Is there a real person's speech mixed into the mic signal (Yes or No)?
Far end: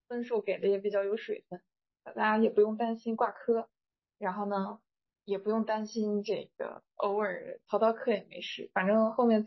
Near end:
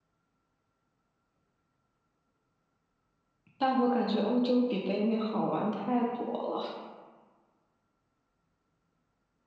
Yes